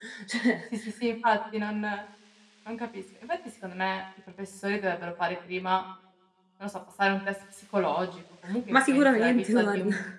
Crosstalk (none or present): present